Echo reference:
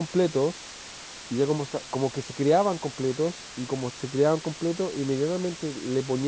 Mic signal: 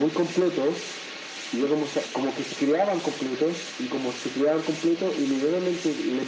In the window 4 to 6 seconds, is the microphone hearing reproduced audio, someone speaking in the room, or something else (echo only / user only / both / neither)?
echo only